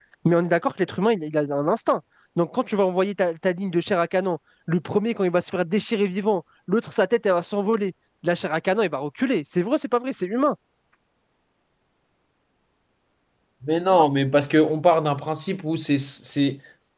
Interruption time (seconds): none

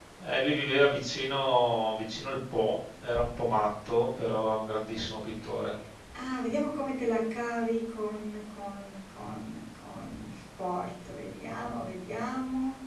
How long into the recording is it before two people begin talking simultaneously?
none

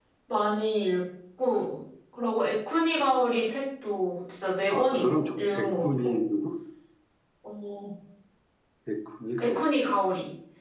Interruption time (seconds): 5 s

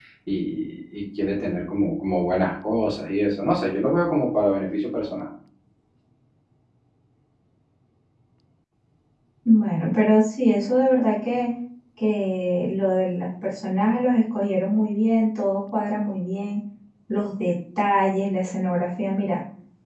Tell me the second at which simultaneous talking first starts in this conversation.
none

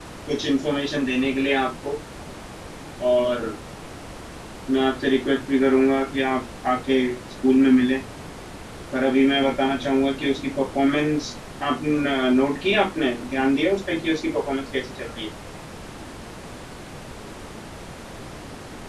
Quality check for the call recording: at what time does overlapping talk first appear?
none

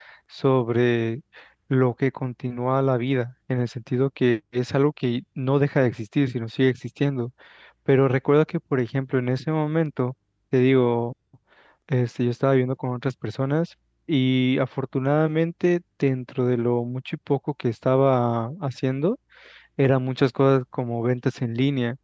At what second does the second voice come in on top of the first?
none

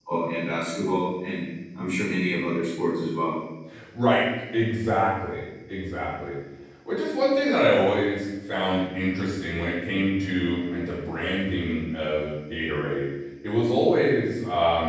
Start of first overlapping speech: none

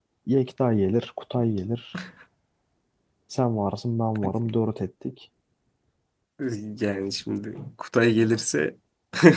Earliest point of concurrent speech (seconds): none

